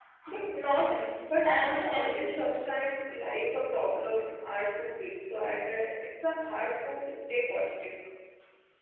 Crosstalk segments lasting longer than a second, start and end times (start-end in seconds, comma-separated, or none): 0.8-2.4